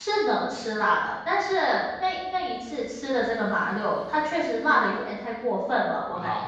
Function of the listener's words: taking over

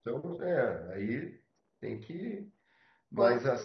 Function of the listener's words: listening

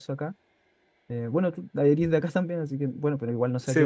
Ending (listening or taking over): listening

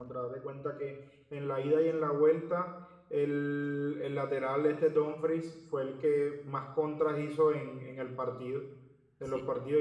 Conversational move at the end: listening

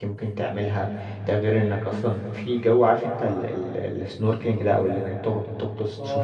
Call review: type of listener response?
taking over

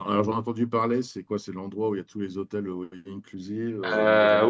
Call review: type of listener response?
taking over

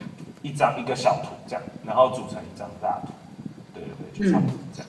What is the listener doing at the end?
taking over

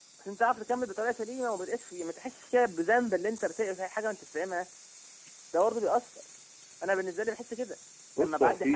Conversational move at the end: taking over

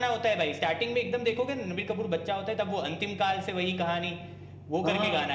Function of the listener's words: taking over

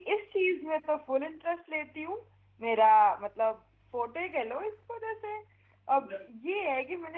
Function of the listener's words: listening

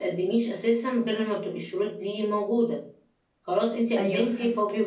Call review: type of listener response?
listening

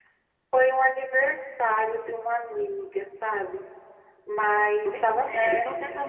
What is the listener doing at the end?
taking over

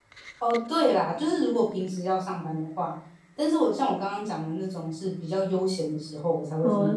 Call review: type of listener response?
listening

